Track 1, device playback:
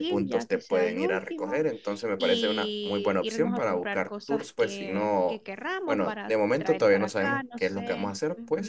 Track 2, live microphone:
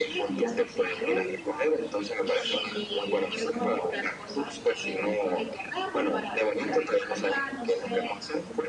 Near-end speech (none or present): none